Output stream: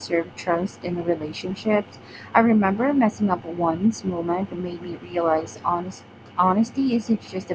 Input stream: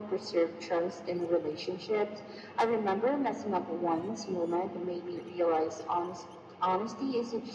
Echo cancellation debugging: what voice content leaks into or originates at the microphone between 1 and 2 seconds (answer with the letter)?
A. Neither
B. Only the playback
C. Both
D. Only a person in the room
B